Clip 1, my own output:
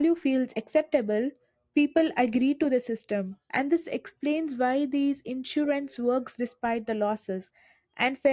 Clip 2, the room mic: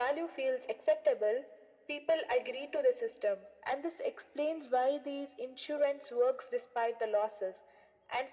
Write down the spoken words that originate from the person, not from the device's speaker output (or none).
none